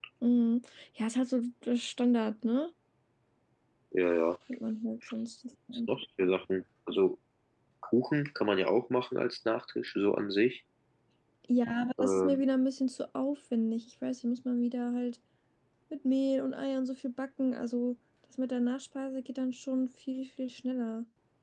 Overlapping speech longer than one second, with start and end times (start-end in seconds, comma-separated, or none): none